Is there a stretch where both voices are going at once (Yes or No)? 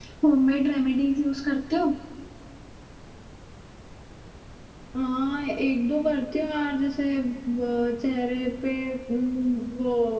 No